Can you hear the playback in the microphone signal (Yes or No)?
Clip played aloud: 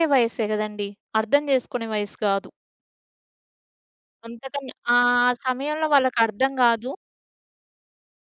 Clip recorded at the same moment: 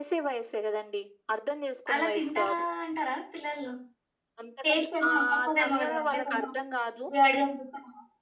Yes